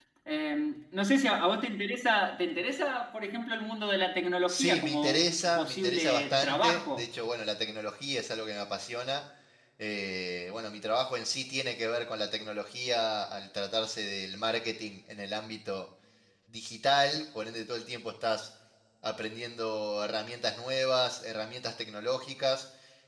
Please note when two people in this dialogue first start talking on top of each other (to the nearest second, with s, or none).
4 s